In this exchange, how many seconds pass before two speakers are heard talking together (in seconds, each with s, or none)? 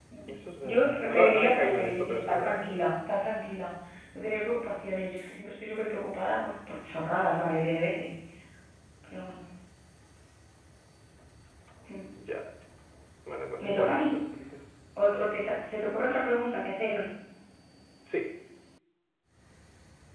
0.7 s